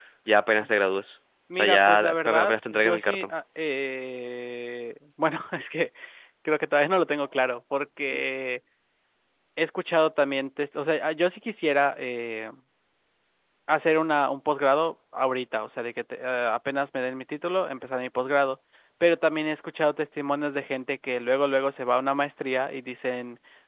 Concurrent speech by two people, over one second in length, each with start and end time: 1.6-3.3

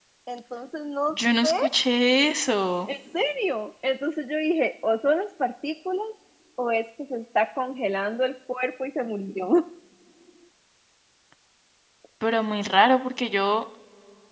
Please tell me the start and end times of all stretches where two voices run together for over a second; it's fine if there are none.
none

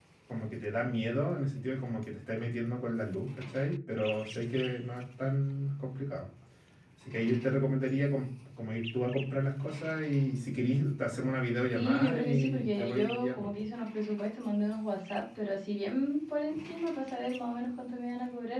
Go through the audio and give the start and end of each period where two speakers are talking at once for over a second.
11.7-13.5

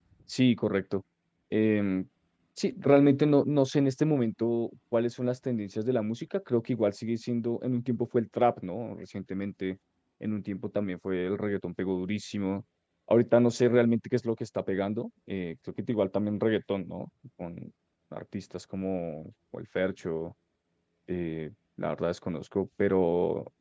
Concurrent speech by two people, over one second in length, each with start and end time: none

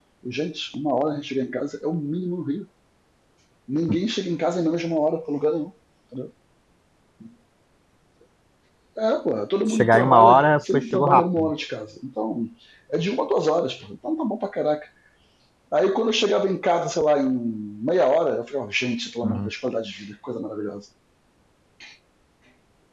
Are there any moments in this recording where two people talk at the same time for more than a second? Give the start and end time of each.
9.7-11.5

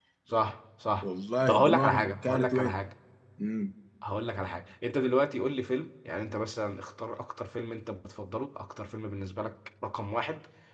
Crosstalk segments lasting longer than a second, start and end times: 1.5-2.7

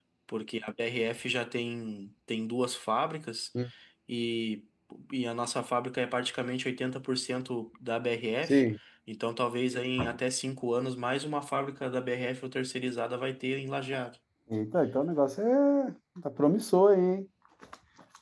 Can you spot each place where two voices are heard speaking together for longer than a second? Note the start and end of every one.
none

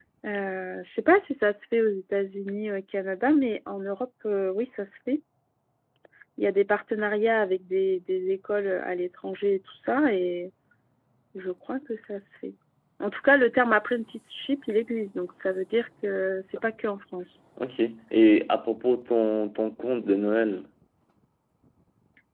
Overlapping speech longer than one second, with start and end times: none

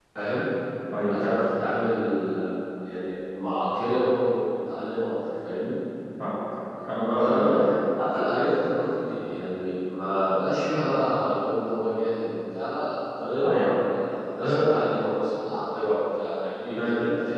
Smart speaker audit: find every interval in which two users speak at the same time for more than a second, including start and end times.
none

